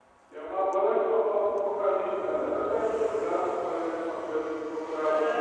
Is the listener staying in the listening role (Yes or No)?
No